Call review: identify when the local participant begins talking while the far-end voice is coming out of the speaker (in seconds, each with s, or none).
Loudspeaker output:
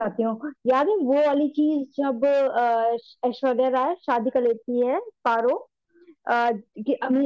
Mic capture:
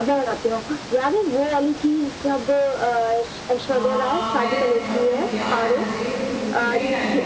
3.7 s